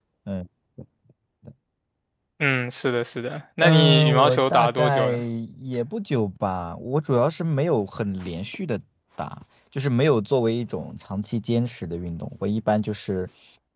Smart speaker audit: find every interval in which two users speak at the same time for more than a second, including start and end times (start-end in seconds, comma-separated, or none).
3.6-5.1